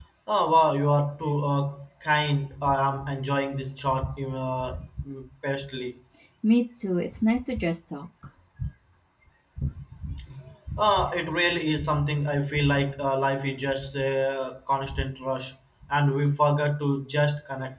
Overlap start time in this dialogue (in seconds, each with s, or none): none